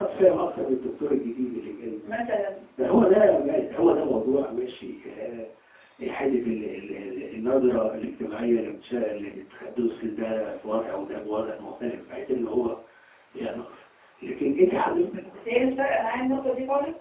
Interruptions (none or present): none